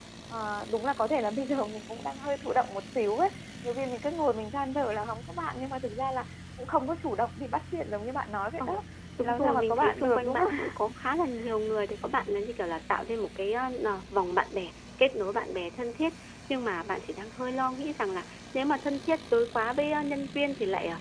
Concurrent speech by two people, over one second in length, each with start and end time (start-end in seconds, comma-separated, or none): 9.2-10.5